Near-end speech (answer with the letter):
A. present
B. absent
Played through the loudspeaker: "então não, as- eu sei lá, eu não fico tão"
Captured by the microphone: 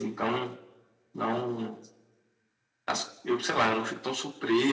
B